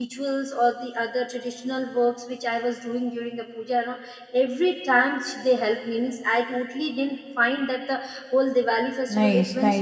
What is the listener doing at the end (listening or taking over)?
taking over